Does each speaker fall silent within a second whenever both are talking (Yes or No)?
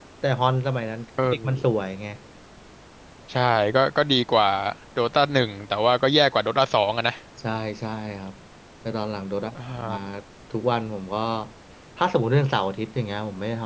Yes